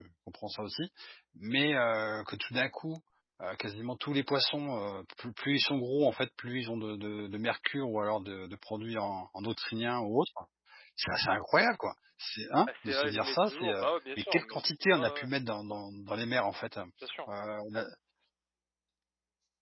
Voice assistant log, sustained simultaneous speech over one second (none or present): present